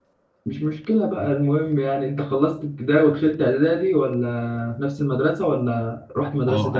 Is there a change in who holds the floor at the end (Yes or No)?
Yes